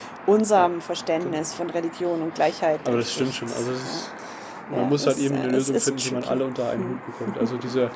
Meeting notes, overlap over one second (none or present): present